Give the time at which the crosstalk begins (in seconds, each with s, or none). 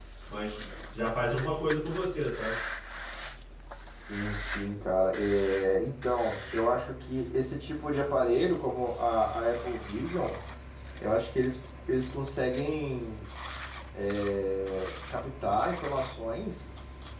none